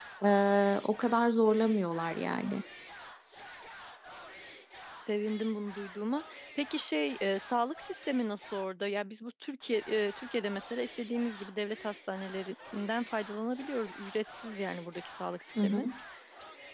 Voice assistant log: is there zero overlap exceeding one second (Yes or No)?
Yes